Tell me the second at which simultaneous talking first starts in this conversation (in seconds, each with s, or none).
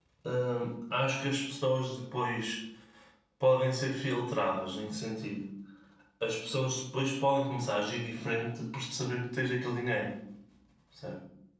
none